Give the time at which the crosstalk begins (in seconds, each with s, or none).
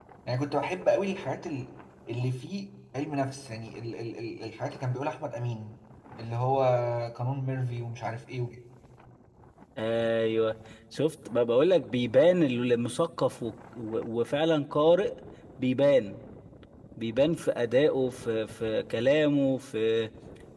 none